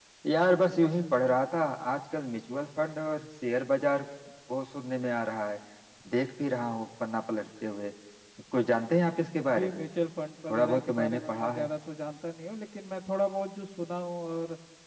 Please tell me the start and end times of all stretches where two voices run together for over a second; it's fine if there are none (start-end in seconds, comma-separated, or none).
10.5-11.7